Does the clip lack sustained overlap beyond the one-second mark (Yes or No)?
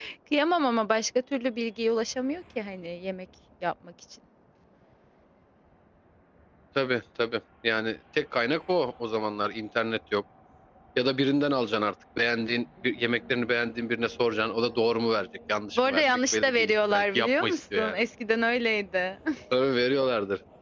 No